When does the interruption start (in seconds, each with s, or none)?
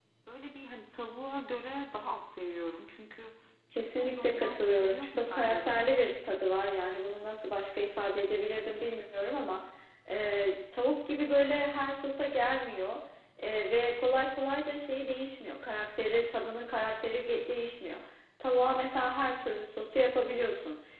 4.0 s